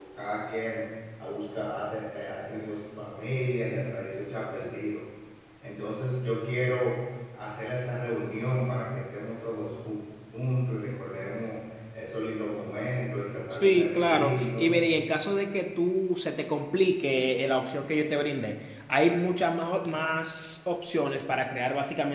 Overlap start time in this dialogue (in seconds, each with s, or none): 13.5 s